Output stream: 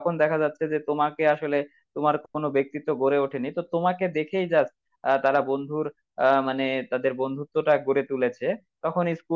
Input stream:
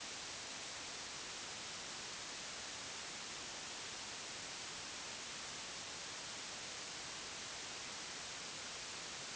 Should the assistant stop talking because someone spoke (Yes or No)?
No